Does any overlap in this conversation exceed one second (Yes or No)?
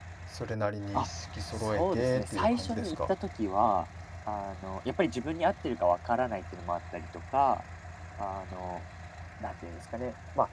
Yes